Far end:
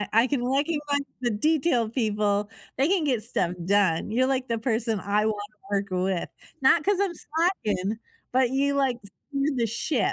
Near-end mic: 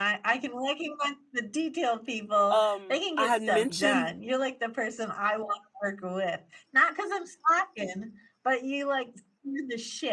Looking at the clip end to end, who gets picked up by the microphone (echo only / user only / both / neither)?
both